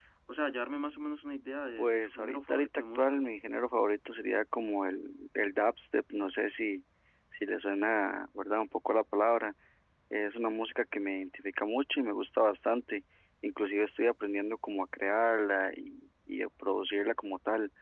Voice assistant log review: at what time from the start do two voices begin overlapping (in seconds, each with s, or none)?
1.8 s